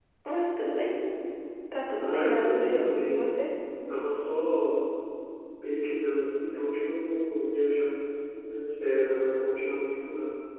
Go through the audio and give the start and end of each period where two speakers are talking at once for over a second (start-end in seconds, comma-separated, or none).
2.0-3.2